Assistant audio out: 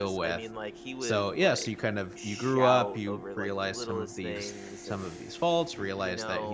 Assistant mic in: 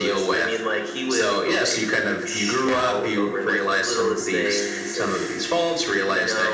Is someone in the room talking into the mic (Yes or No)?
No